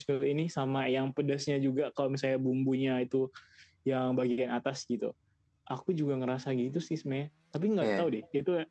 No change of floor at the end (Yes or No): Yes